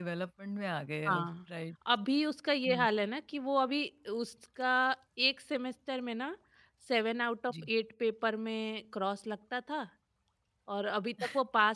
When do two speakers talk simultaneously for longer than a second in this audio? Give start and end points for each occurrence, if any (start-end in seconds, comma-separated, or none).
none